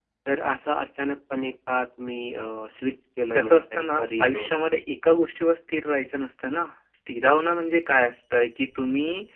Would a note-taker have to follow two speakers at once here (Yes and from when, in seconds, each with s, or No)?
Yes, from 3.4 s